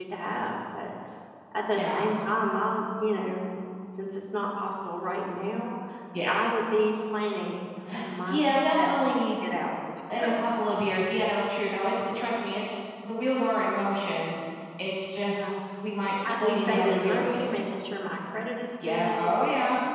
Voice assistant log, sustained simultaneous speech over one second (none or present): present